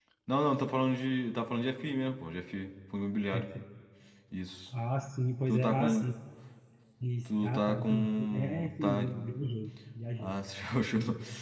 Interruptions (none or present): present